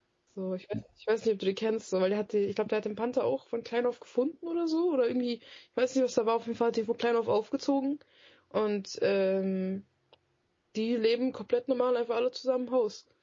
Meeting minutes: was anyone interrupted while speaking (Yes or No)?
No